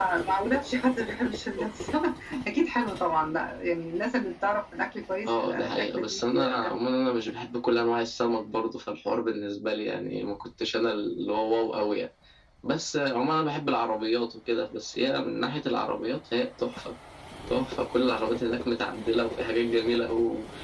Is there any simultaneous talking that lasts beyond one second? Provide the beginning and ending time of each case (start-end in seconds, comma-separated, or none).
5.2-6.8